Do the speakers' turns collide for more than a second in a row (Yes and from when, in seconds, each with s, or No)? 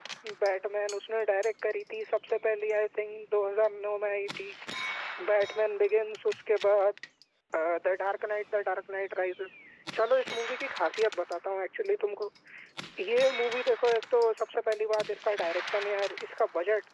No